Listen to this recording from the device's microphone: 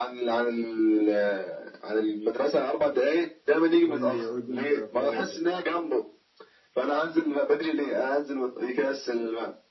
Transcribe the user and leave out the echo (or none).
كل اذن صغير يا صاحبي